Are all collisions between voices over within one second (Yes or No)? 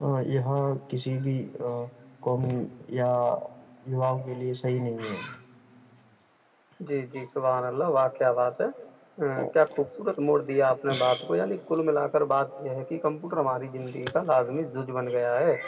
Yes